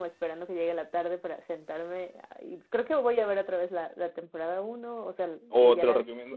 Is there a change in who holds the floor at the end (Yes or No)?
Yes